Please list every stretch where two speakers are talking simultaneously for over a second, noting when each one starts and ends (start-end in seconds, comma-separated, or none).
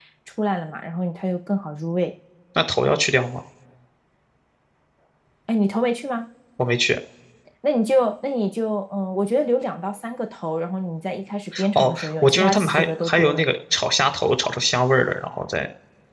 11.8-13.4